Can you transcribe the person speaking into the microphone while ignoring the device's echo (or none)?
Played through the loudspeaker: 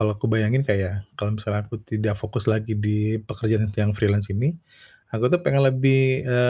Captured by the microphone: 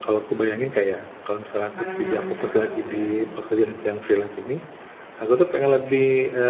Makanan yang cepat, gitu ya?